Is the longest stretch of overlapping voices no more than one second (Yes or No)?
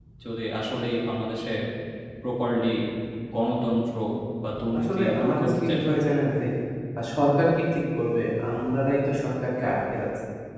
No